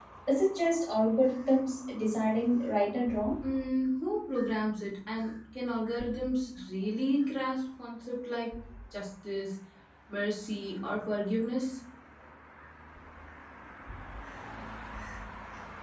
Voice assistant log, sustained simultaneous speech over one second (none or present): none